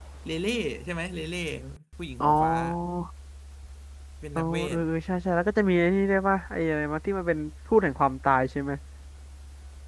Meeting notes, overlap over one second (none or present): none